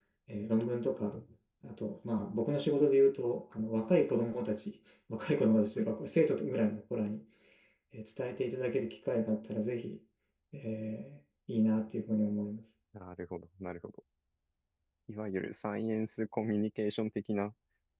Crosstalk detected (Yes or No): No